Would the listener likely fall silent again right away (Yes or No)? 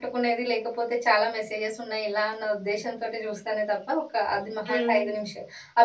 Yes